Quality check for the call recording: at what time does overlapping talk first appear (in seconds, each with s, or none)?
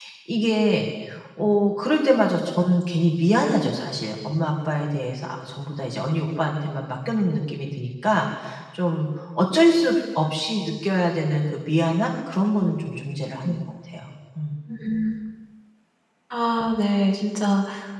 none